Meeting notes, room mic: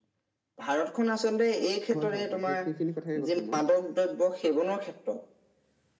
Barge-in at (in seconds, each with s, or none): 1.9 s